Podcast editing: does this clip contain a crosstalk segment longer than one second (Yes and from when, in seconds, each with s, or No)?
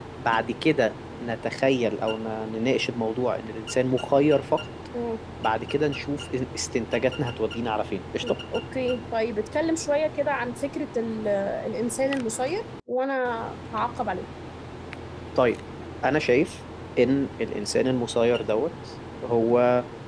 No